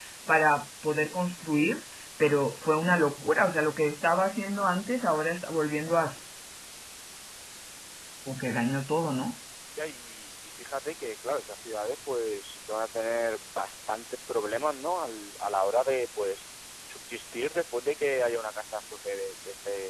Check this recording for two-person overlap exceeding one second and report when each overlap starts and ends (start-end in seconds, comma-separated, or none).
none